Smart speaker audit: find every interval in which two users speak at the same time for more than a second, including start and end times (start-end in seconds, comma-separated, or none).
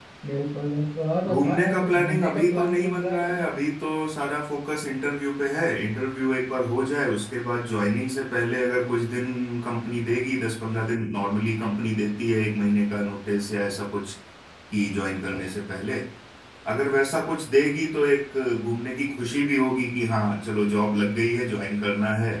1.2-3.5